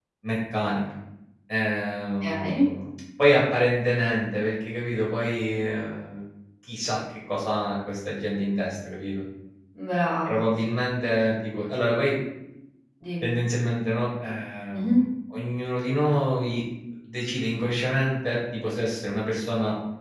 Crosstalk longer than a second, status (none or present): none